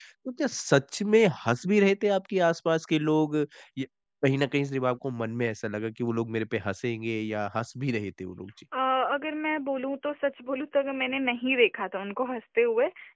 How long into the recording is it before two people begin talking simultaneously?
none

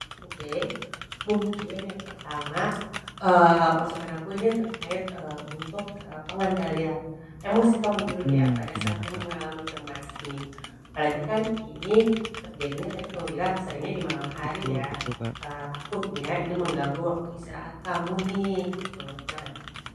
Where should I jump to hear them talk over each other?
8 s

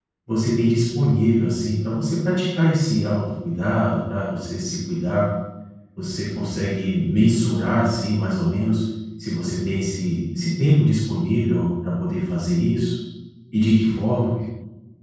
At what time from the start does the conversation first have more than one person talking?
none

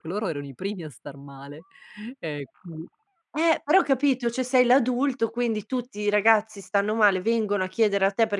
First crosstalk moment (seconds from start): none

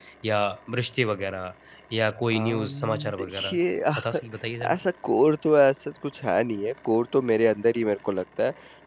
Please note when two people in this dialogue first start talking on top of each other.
2 s

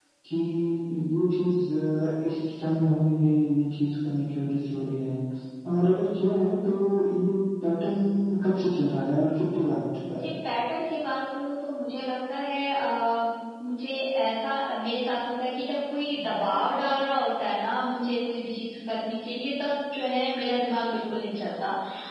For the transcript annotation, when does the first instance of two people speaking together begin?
none

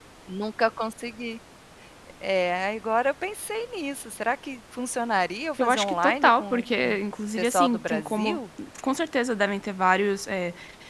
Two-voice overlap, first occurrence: 6 s

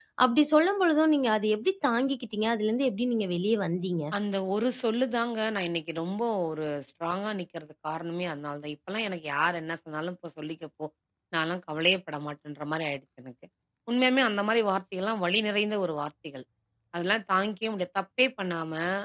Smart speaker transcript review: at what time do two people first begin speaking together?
none

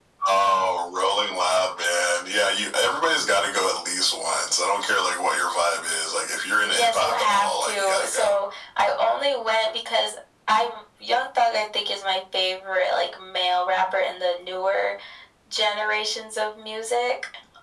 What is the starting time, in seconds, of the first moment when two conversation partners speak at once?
7 s

